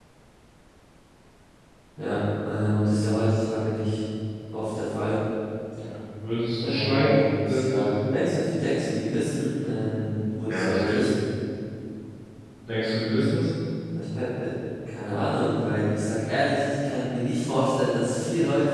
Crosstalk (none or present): present